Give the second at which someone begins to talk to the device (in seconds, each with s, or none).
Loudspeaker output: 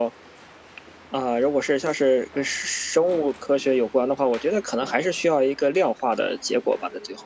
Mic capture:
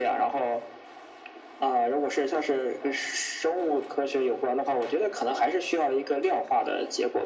none